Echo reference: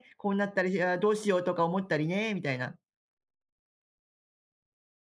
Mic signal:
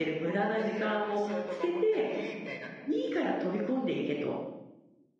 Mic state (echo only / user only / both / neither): both